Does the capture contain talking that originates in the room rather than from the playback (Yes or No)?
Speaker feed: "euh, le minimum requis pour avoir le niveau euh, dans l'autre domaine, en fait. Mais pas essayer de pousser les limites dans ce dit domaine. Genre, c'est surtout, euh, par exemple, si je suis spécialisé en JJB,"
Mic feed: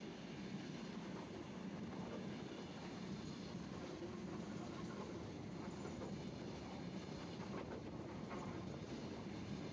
No